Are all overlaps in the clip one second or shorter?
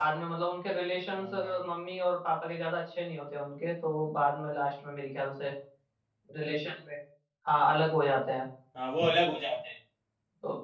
Yes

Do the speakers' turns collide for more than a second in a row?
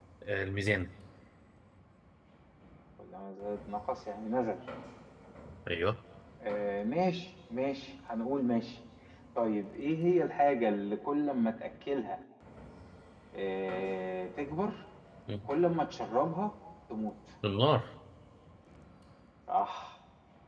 No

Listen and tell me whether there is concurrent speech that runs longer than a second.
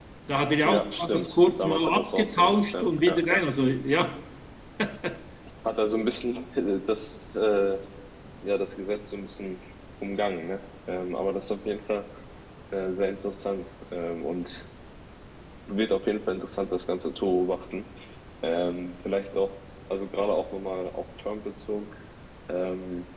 Yes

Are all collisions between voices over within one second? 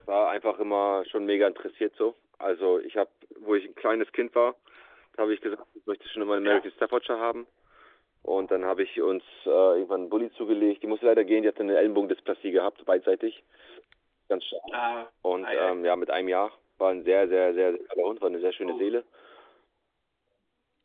Yes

